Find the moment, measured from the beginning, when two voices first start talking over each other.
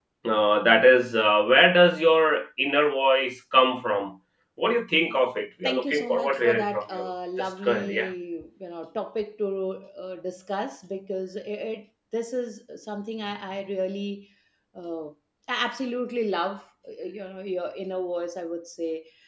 5.6 s

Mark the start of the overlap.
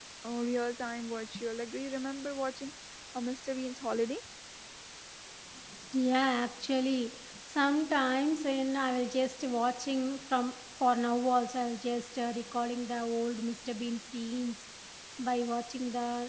none

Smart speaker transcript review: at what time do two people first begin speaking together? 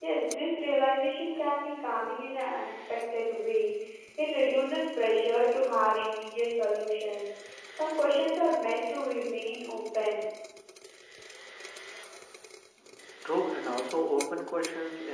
none

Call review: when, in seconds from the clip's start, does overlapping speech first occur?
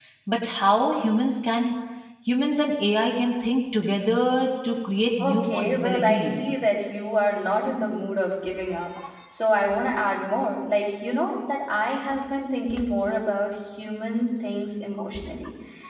5.2 s

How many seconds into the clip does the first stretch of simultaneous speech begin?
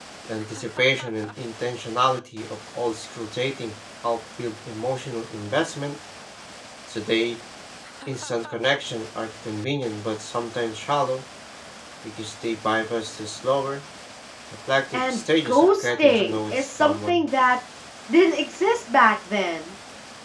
14.9 s

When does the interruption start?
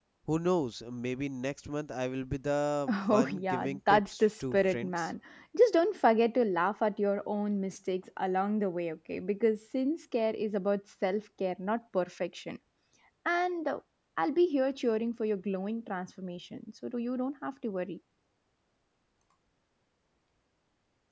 2.9 s

